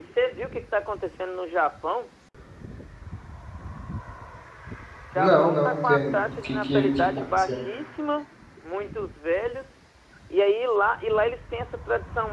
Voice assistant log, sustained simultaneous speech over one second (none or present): present